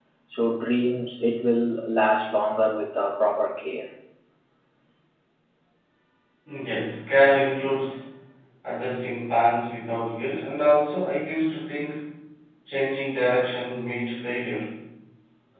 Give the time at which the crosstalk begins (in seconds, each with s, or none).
none